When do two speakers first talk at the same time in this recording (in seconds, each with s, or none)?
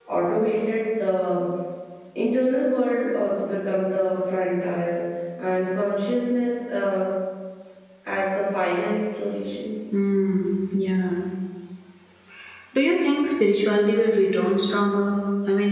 none